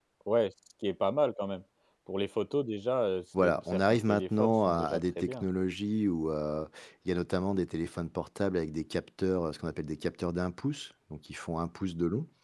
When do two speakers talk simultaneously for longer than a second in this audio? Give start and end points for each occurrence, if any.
3.4-5.5

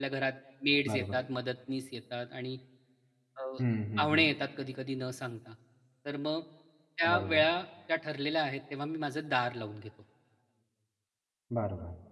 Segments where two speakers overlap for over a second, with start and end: none

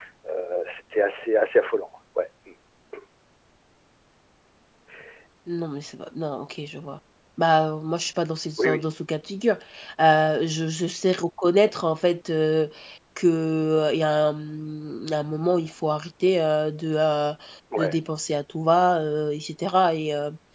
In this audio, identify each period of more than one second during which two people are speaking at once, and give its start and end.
none

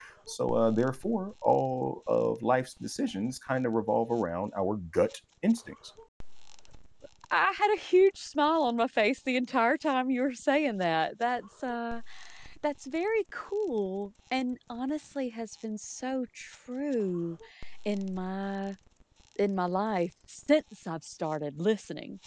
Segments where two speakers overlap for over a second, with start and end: none

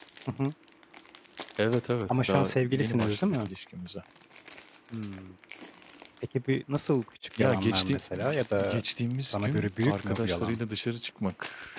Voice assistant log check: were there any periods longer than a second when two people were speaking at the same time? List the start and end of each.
2.1-3.5, 7.4-8.8, 9.3-10.6

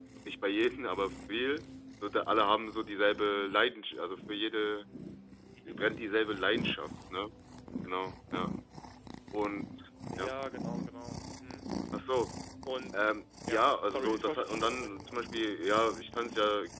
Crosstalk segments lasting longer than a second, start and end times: 13.5-15.4

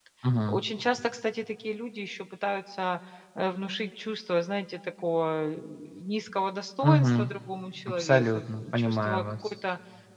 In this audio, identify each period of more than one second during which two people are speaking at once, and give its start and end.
7.9-9.5

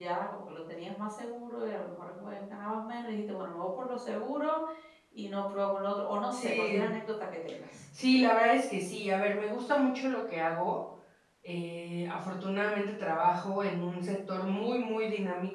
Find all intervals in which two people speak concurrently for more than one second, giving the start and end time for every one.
none

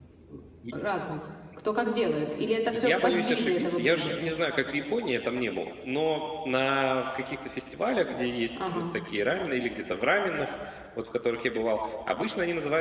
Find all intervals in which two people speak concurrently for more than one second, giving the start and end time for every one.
2.7-4.1

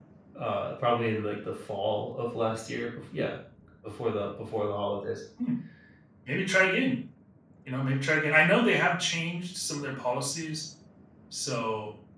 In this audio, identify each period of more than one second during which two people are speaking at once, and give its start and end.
none

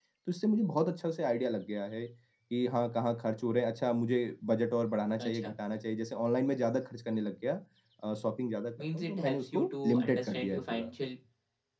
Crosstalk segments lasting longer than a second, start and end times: 8.9-10.9

